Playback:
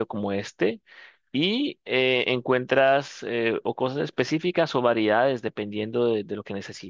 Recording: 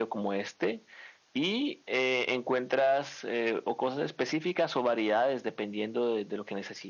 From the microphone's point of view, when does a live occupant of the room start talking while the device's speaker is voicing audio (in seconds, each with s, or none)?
none